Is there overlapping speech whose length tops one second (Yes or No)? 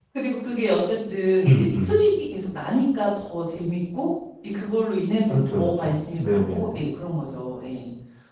Yes